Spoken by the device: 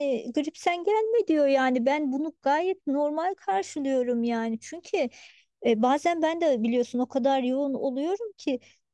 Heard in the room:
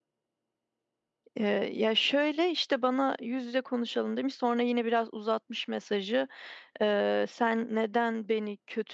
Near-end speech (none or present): present